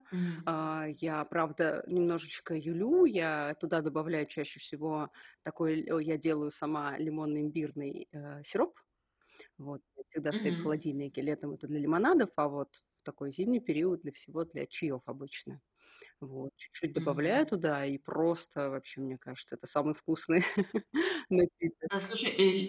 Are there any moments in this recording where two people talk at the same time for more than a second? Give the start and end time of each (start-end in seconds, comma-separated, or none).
none